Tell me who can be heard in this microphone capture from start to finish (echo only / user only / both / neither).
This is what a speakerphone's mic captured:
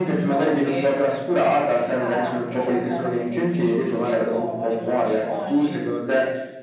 echo only